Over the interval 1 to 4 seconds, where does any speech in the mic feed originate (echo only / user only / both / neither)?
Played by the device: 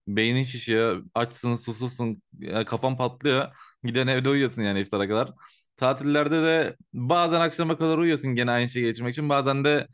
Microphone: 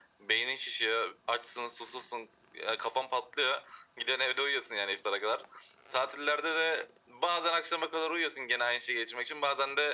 echo only